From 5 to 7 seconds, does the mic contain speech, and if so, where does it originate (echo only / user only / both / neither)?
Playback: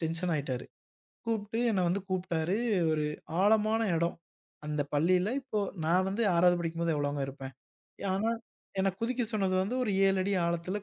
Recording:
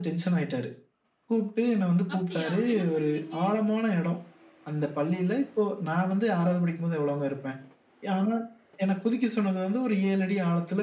echo only